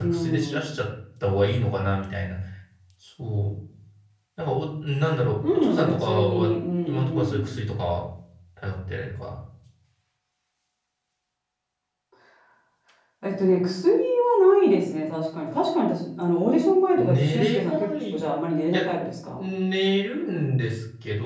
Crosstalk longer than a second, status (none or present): present